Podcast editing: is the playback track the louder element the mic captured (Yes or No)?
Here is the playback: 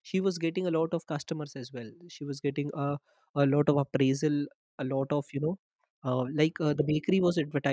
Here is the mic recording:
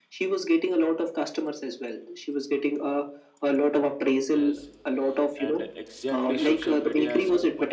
Yes